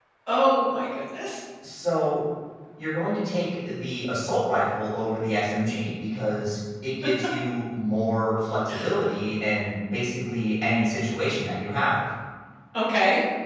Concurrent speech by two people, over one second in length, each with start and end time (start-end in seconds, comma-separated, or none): none